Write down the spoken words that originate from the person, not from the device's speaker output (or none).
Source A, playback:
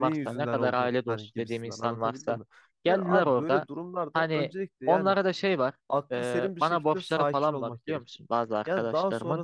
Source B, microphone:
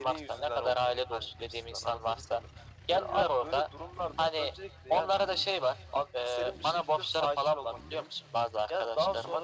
none